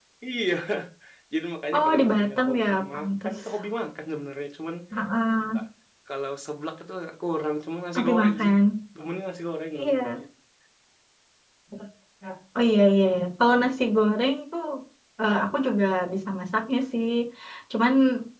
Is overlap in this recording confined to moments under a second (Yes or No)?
No